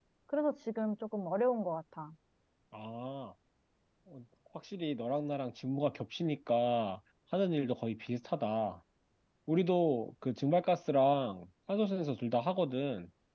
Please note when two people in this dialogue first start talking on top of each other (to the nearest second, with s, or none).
none